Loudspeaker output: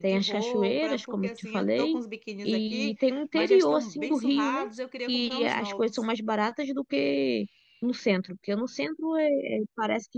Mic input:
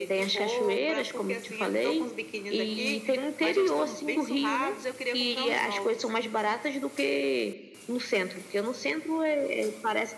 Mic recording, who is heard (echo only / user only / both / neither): echo only